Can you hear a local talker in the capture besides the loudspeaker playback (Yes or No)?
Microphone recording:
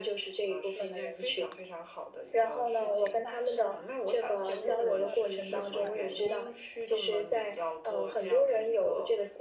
Yes